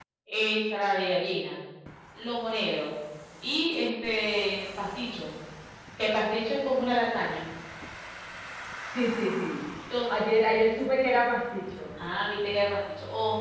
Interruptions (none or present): none